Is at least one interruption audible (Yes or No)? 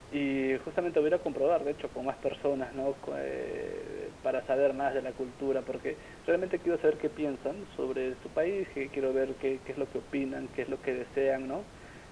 No